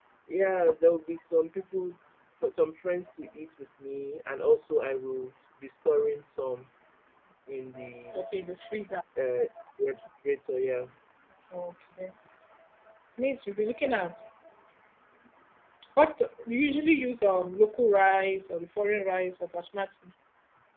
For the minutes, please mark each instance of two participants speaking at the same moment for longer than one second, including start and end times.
none

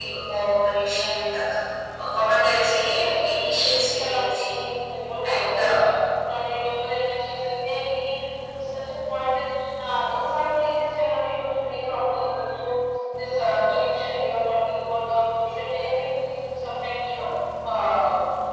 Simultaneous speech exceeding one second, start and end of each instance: 2.9-4.6

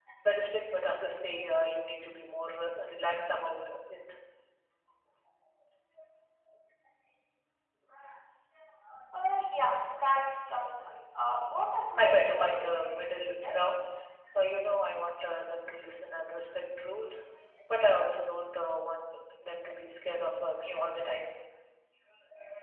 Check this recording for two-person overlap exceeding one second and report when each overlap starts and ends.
12.0-13.6

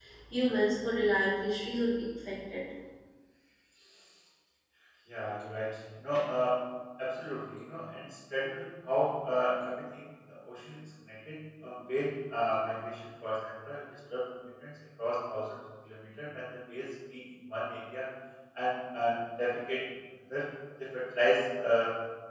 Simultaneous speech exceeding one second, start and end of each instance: none

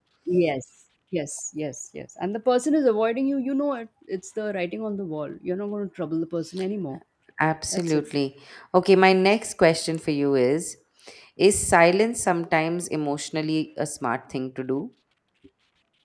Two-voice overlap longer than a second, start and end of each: none

